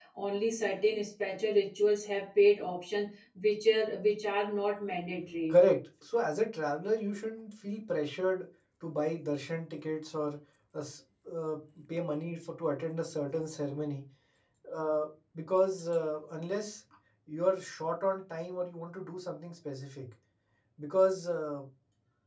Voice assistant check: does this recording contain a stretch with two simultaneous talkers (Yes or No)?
No